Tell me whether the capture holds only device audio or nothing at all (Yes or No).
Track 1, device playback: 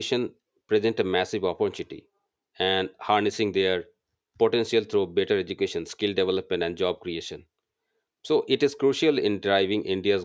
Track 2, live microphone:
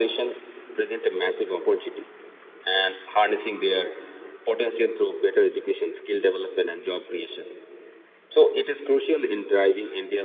Yes